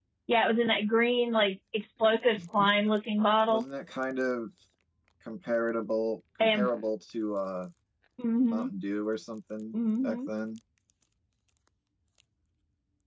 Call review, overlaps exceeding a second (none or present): none